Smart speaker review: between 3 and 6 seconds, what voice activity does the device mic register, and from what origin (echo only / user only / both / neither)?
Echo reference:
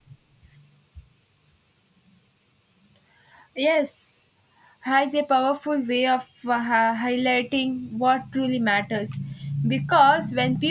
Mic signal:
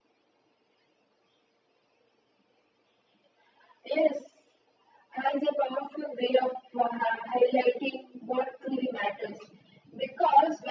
echo only